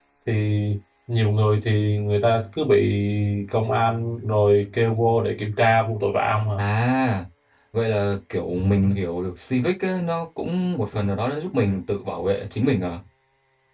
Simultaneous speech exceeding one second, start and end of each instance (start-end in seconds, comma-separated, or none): none